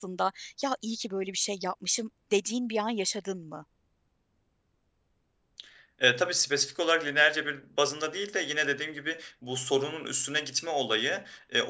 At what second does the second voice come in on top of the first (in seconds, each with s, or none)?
none